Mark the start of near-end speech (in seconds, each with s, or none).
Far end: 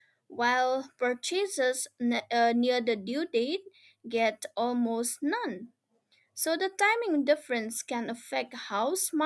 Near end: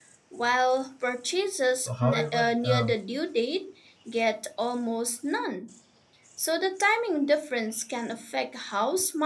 1.8 s